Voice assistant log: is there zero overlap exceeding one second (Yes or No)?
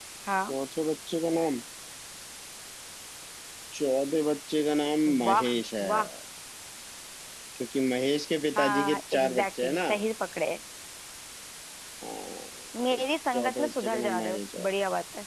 No